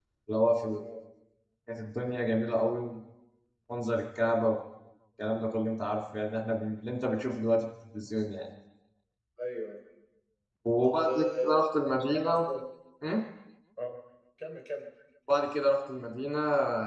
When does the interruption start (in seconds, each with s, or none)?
10.8 s